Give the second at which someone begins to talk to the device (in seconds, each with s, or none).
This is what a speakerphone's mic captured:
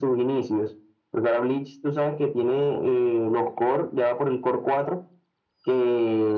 none